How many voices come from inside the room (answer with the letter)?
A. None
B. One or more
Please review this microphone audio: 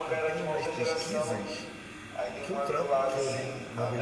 B